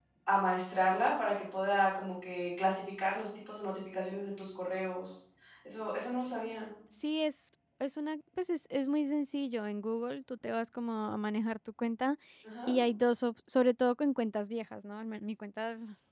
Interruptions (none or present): none